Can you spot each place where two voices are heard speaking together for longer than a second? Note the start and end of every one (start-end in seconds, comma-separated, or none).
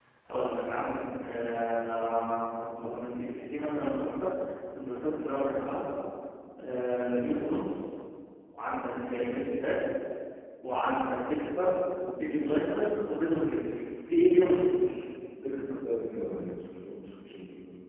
none